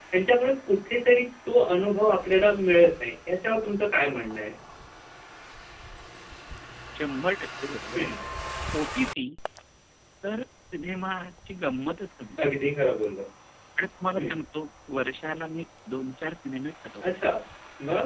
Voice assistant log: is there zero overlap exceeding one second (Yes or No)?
Yes